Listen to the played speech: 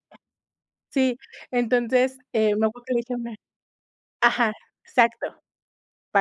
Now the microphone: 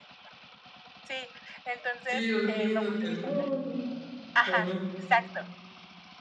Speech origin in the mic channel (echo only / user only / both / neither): both